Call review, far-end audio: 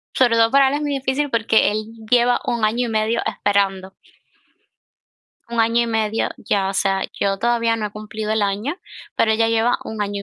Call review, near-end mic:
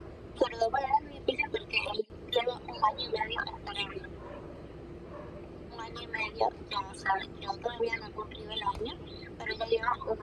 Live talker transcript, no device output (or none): none